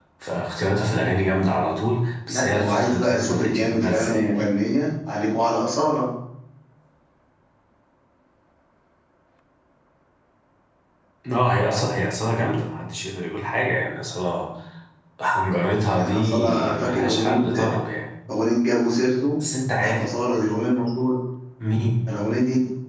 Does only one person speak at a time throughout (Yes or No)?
No